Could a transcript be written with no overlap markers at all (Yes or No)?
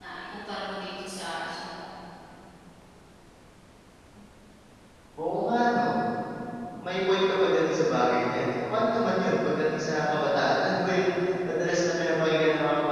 Yes